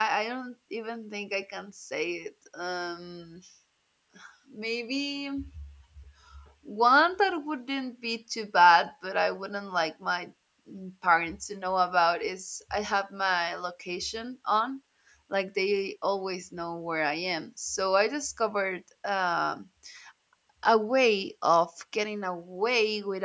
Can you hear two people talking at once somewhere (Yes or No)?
No